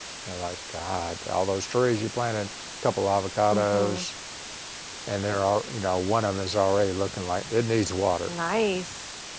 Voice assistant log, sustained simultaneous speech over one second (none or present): none